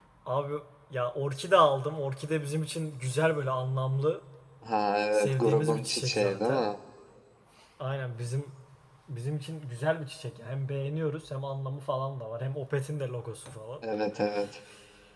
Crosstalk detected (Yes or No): Yes